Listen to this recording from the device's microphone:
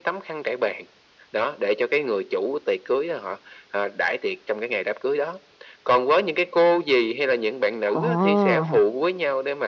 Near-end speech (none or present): present